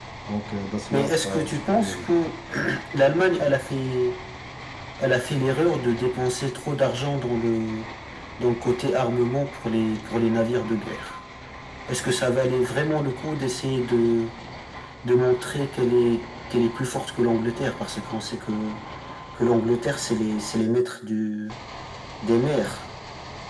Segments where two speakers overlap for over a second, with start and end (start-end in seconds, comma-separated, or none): 0.9-2.2